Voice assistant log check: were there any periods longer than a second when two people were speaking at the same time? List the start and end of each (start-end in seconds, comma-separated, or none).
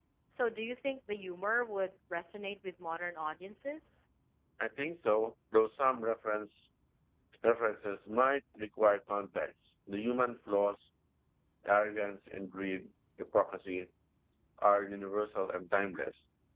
none